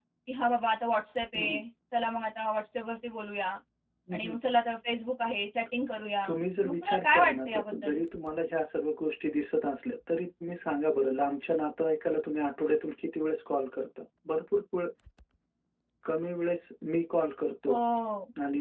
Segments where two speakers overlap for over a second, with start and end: 6.2-7.9

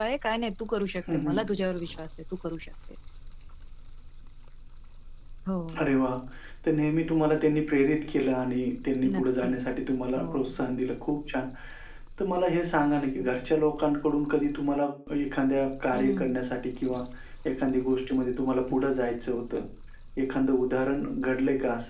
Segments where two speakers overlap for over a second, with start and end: none

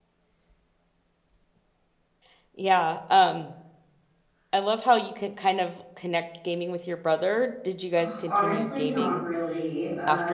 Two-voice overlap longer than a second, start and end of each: 8.0-9.2

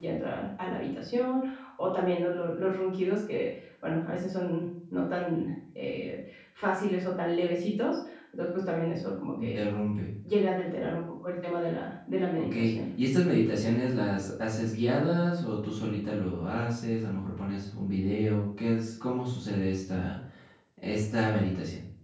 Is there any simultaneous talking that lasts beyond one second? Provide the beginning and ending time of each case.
none

